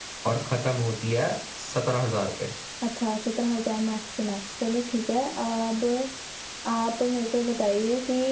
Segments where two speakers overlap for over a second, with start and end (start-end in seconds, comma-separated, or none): none